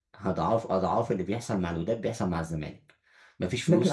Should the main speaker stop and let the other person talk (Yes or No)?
Yes